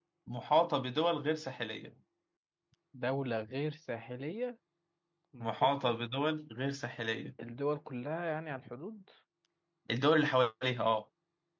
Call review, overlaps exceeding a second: none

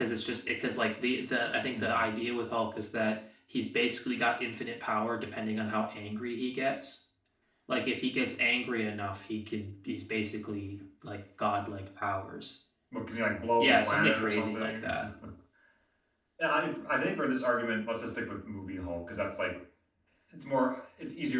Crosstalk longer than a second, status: present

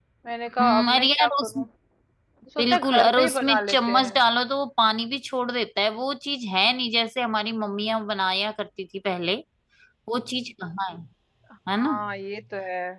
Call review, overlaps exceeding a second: present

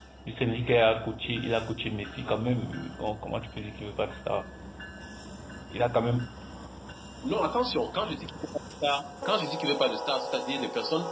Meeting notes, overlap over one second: none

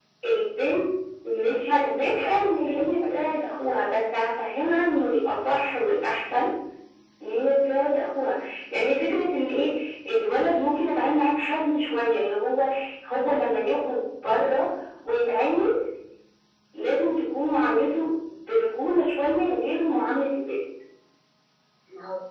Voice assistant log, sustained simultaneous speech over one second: present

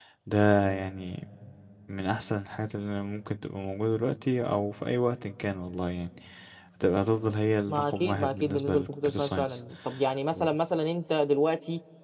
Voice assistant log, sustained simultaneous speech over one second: present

